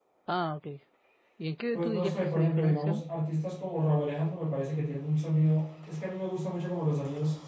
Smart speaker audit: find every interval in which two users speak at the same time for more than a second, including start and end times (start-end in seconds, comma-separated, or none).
1.7-3.0